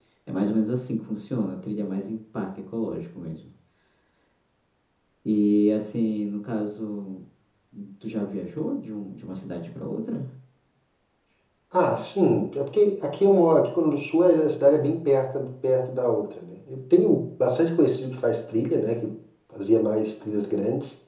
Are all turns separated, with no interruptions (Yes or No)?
Yes